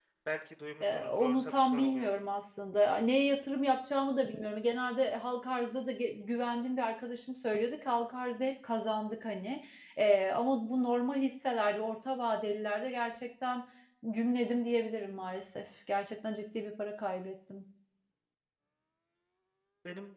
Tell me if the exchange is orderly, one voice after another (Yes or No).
No